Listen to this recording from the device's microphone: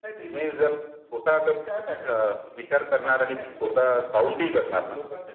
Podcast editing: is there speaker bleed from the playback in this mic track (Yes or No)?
Yes